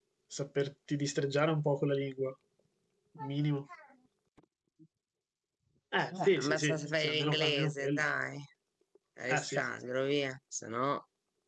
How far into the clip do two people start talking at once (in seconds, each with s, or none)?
6.3 s